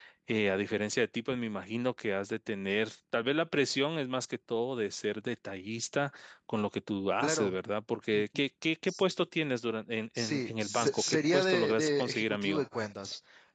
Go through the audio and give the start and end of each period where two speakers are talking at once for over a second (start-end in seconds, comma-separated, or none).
10.2-12.6